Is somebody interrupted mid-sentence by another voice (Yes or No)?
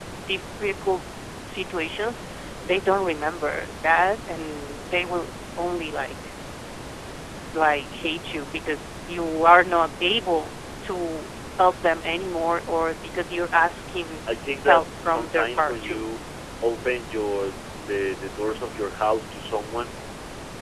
Yes